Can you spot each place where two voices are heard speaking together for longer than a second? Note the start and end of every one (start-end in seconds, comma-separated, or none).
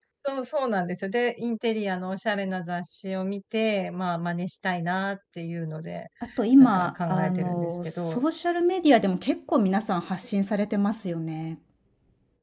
6.6-8.2